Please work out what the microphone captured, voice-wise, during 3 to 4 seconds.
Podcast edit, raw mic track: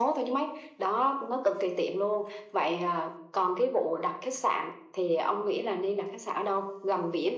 echo only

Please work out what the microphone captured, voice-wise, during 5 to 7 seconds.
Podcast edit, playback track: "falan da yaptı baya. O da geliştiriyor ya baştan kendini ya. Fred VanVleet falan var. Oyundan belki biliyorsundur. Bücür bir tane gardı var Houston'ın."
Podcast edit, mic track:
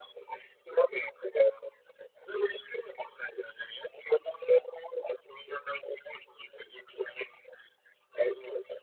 echo only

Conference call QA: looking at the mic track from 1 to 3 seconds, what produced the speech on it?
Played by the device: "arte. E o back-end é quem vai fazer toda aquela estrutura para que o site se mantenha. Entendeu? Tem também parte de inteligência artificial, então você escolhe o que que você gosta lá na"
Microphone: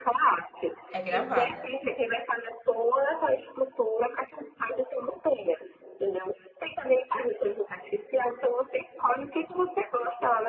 both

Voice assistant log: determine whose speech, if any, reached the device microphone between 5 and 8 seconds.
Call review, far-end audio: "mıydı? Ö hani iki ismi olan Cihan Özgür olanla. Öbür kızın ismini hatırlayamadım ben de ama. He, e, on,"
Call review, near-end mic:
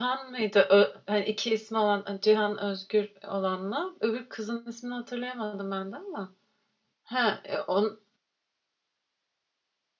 echo only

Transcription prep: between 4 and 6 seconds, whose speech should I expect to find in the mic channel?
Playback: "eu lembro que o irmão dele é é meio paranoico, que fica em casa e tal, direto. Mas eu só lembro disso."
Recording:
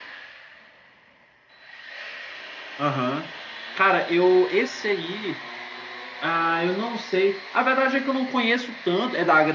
user only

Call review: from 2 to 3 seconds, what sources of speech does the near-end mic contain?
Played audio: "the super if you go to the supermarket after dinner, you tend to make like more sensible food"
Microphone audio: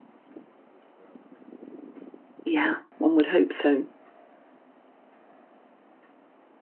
user only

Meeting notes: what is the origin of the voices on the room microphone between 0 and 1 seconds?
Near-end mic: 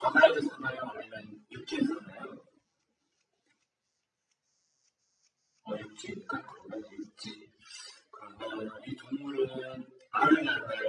echo only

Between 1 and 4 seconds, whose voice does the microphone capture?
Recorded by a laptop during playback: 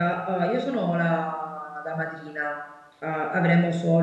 user only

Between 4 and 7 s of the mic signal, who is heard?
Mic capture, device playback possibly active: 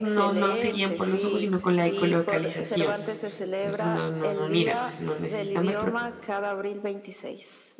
both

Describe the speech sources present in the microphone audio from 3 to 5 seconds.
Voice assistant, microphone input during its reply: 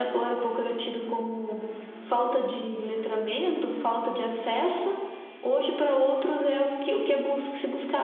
echo only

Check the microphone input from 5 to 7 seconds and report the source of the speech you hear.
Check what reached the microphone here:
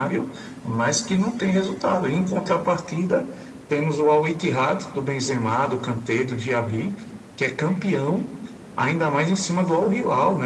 echo only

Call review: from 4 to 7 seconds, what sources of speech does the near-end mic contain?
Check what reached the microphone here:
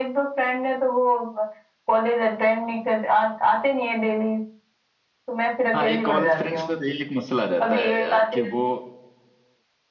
both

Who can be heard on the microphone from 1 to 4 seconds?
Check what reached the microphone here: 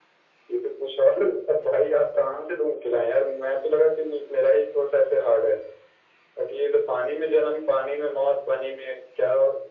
echo only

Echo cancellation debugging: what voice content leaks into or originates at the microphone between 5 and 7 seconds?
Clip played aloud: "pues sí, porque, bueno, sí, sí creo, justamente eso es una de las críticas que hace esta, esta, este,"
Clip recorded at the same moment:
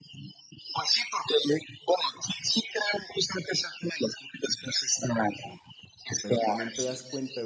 both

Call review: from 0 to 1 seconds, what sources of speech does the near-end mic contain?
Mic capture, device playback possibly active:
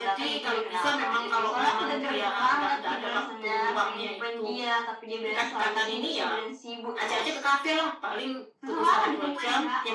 echo only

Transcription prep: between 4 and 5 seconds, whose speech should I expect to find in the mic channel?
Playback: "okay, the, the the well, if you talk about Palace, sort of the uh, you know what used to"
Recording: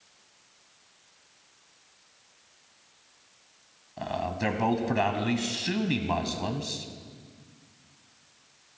user only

